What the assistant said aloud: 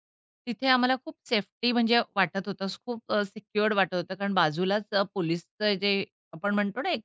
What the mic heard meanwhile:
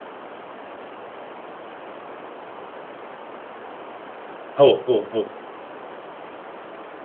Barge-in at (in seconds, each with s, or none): 4.6 s